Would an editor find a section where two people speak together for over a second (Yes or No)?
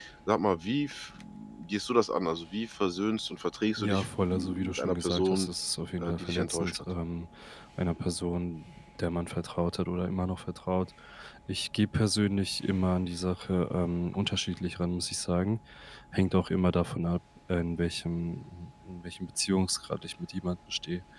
Yes